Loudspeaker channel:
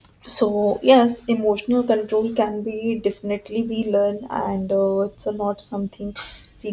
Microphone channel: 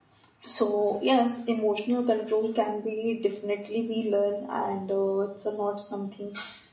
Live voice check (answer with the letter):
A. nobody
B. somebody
A